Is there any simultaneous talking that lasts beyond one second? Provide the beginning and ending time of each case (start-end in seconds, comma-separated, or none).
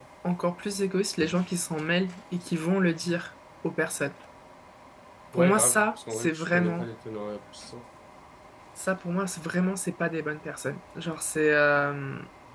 5.3-6.9